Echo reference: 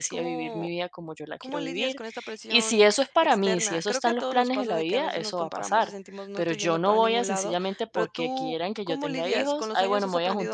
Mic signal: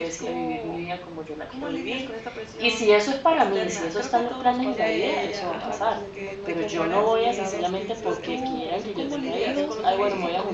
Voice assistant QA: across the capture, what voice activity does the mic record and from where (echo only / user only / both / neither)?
both